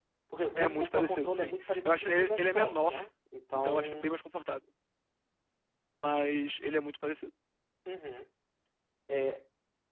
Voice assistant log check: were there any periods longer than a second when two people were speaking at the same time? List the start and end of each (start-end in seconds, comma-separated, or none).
0.6-2.9